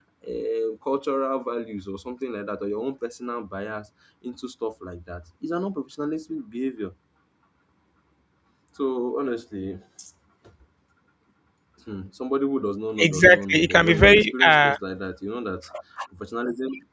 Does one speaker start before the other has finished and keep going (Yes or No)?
Yes